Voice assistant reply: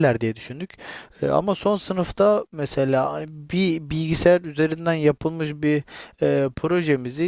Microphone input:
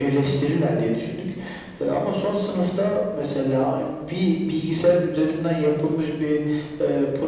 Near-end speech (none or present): none